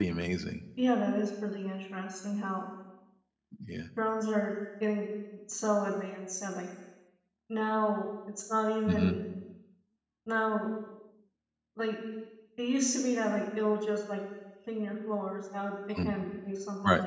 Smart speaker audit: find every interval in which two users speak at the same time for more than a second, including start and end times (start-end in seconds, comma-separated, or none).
none